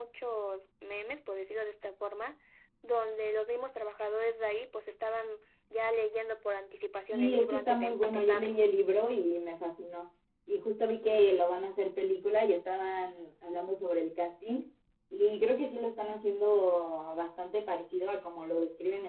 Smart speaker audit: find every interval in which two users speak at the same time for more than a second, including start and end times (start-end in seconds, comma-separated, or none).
7.1-8.5